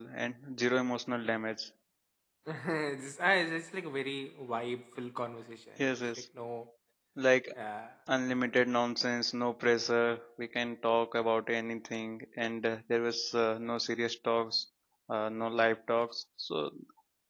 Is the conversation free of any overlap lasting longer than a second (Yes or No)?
Yes